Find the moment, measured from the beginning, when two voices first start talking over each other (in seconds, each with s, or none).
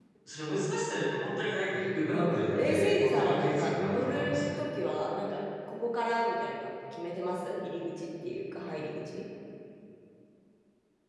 2.1 s